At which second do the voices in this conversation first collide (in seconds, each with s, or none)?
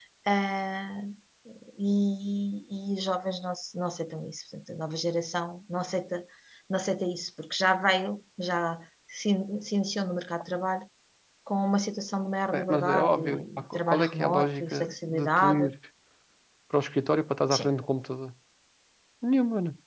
12.5 s